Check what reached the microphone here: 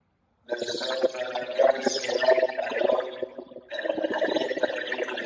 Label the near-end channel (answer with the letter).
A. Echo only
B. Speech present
A